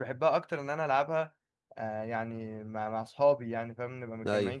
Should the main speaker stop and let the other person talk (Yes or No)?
Yes